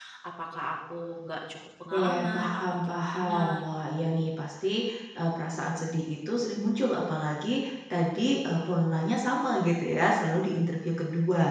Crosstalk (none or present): present